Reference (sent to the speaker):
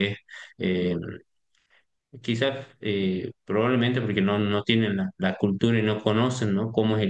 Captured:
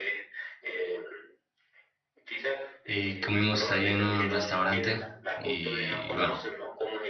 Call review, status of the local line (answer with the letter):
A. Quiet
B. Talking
B